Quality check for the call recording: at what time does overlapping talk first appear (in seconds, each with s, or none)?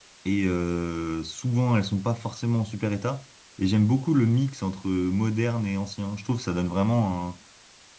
none